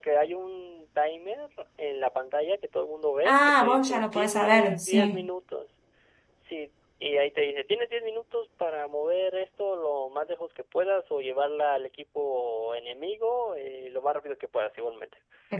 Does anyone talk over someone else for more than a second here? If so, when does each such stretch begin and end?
3.2-5.3

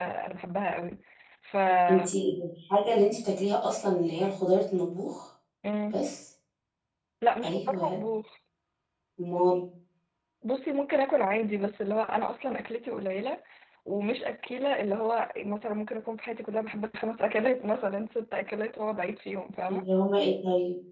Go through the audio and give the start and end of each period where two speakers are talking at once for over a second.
none

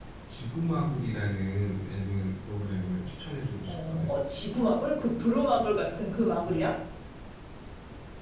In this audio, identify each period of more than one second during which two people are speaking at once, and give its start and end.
none

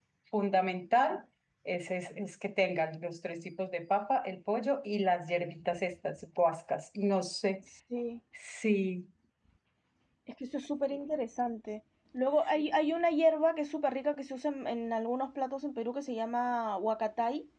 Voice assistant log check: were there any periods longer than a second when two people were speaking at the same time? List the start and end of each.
none

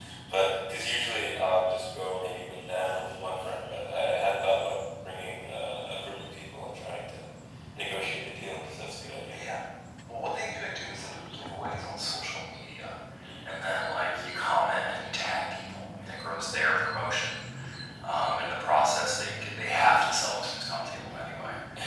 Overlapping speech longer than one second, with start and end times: none

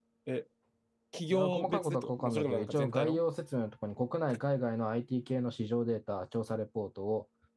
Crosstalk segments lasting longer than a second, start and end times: 1.3-3.2

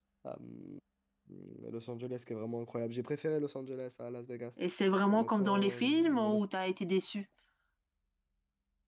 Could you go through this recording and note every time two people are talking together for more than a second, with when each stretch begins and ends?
5.1-6.4

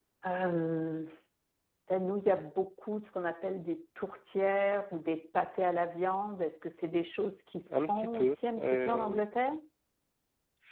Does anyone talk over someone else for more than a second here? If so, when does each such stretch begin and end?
7.7-9.2

